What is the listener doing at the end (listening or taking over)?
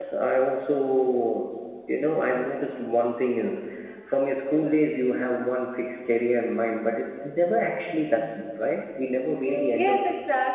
taking over